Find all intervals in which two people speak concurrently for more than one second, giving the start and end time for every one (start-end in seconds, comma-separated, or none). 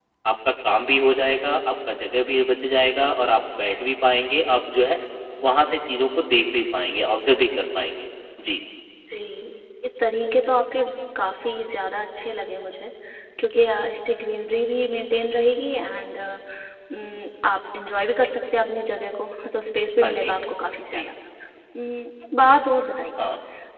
none